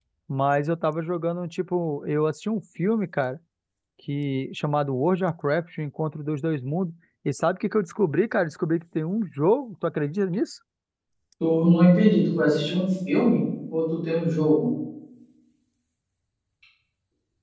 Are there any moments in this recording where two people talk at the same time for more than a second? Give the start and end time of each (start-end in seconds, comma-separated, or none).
none